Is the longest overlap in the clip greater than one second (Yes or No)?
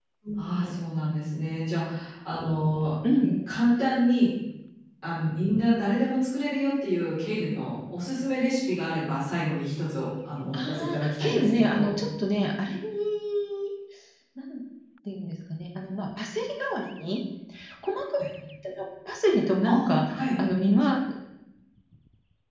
Yes